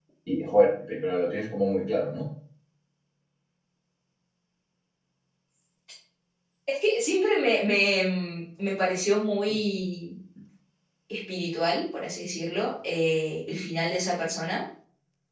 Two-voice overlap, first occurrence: none

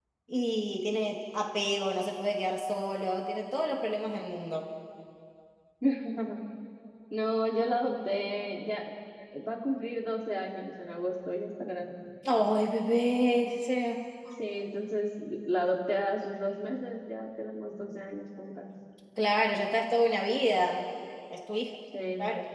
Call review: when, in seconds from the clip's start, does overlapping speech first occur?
none

